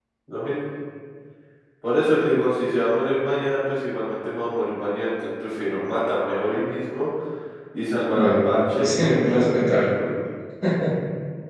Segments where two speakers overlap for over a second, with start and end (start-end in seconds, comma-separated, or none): 8.1-9.9